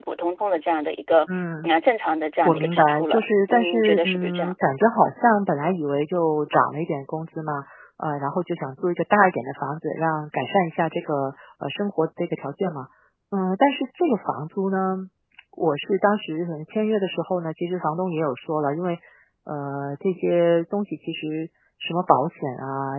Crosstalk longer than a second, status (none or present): present